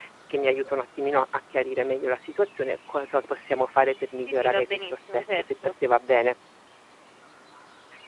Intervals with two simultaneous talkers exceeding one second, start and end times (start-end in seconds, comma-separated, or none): 4.3-5.7